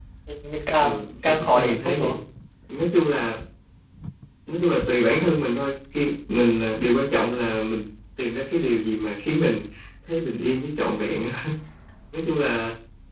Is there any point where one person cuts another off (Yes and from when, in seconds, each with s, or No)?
Yes, from 0.8 s